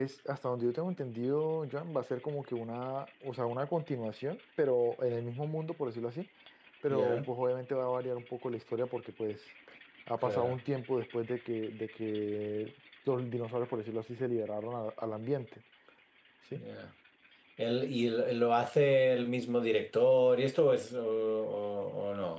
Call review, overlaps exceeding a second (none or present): none